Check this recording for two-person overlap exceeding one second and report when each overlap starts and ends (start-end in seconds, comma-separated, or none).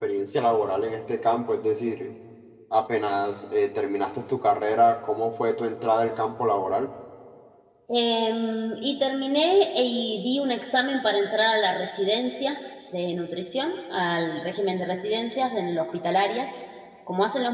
none